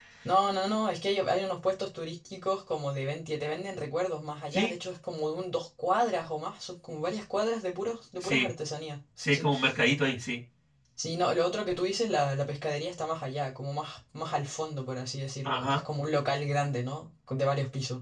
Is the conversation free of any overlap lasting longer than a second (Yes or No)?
Yes